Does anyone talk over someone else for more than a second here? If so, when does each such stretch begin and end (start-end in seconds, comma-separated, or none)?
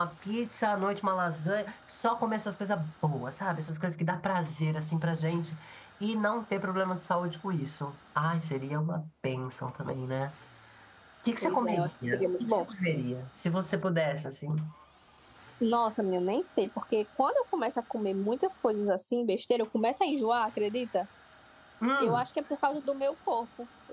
11.4-12.6